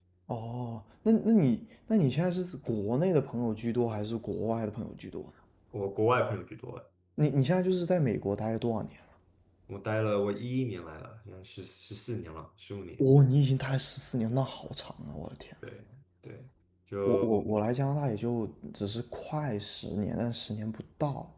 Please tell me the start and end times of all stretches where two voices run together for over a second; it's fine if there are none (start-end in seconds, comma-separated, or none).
none